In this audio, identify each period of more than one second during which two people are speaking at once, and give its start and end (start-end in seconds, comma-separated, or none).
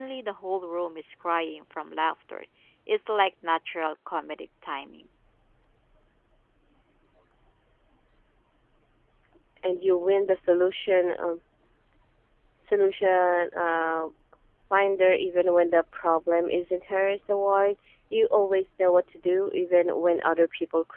none